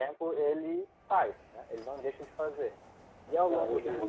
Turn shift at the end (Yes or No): Yes